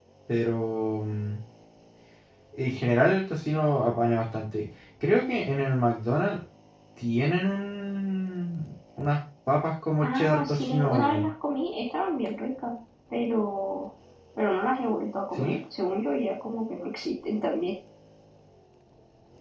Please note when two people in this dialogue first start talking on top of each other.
10.0 s

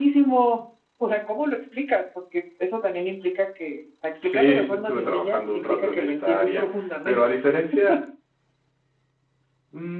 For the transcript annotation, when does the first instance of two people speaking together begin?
4.2 s

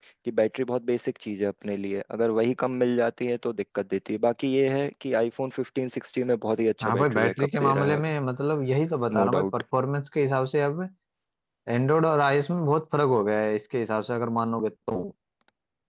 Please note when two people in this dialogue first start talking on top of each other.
6.8 s

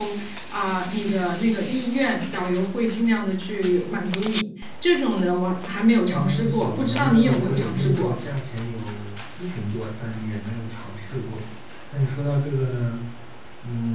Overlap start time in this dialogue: 6.1 s

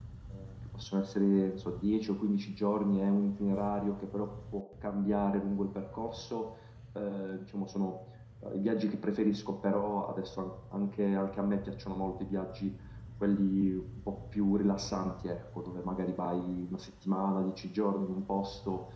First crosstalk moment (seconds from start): none

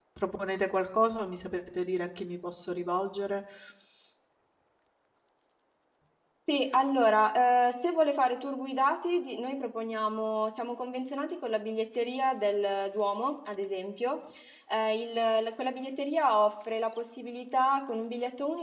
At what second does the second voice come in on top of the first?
none

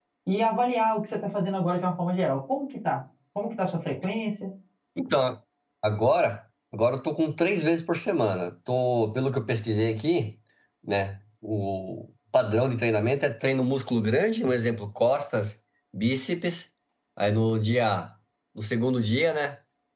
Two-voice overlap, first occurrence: none

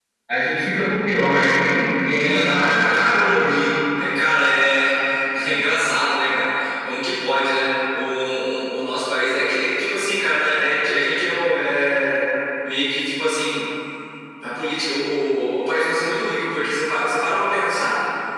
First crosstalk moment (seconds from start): 2.2 s

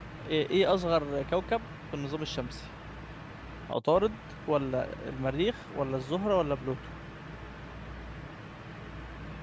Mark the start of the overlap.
none

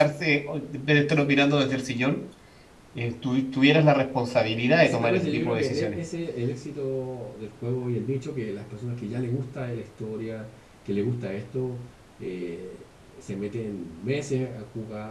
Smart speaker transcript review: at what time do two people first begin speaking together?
4.6 s

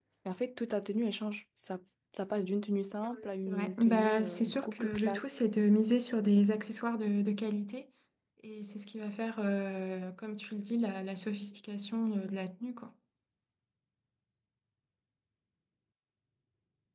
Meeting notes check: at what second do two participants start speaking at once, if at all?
3.0 s

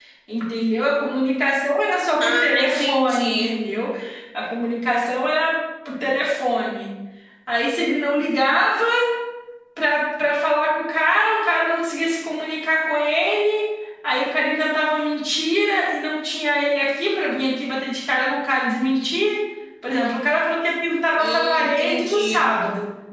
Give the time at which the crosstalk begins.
2.2 s

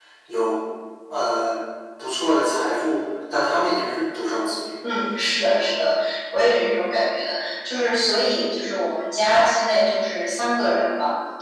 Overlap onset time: none

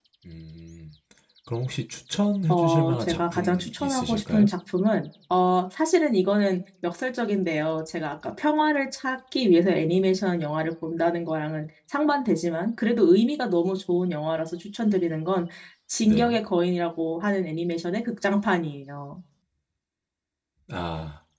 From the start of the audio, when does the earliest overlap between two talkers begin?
2.5 s

